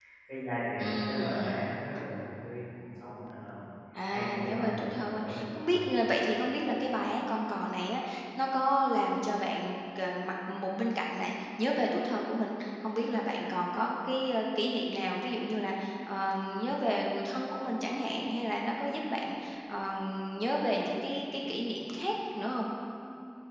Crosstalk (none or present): present